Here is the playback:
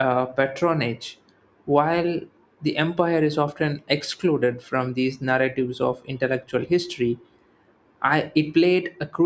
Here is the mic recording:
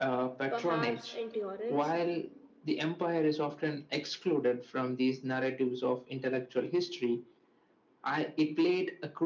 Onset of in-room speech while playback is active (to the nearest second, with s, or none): 0 s